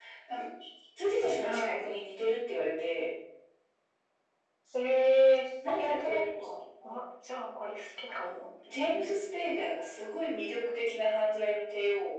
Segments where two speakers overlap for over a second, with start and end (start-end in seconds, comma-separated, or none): 5.7-7.0